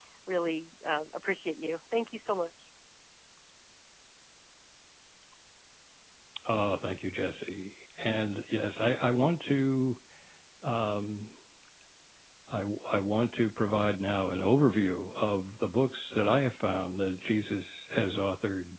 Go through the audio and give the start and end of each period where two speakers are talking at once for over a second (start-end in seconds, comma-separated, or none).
none